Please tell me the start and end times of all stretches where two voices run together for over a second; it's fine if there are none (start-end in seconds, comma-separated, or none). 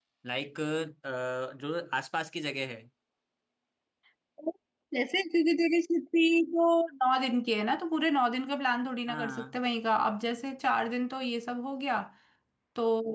none